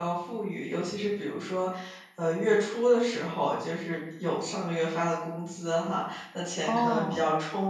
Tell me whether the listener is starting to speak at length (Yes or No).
No